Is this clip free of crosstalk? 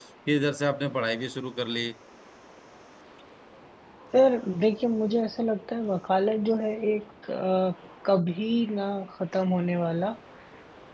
Yes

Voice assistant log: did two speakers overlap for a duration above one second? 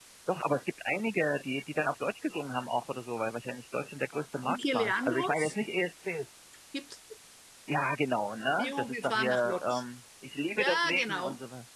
Yes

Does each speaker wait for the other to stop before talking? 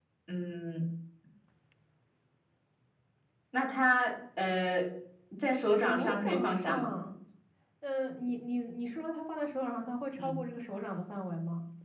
No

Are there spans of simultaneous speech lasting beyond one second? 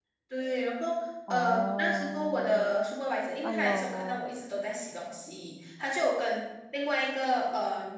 Yes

